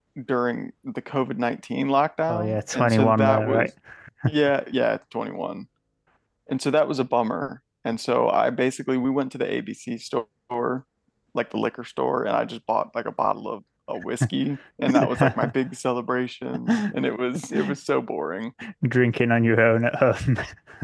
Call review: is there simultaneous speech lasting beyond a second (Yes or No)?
Yes